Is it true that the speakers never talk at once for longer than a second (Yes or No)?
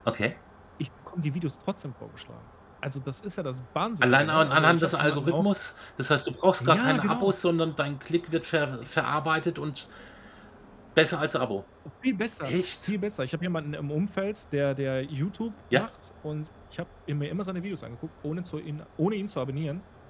No